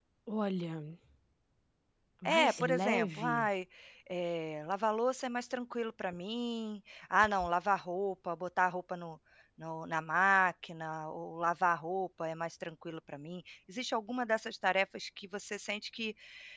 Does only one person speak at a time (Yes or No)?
No